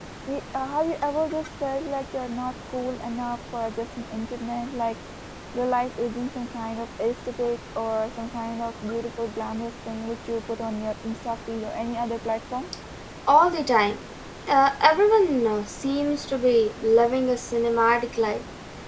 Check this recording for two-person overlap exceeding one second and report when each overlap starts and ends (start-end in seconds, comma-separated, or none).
none